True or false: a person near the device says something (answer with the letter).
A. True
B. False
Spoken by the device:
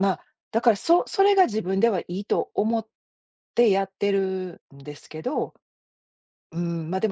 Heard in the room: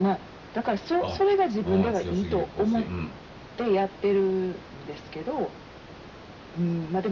A